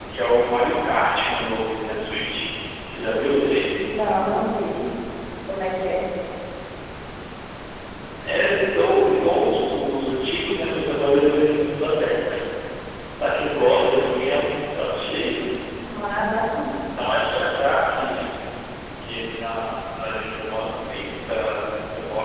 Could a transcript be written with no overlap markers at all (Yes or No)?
Yes